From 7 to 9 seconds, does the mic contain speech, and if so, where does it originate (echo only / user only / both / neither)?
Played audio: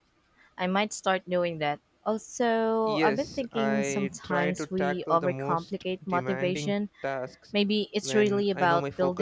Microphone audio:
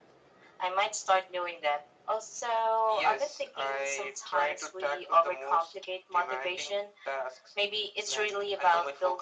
echo only